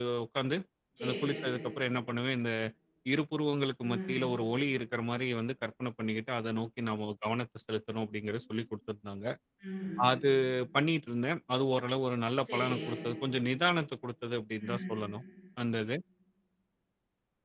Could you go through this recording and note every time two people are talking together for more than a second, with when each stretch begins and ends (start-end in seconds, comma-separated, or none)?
none